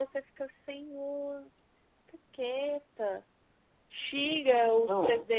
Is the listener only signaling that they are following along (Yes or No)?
Yes